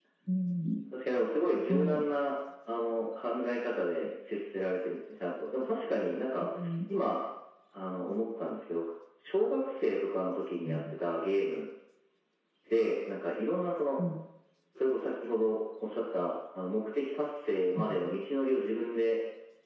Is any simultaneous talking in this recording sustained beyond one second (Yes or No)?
No